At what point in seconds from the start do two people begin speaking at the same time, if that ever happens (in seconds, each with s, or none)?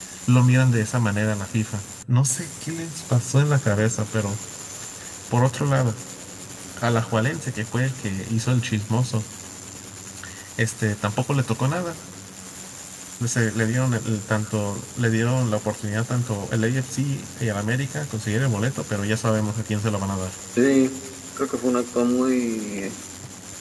none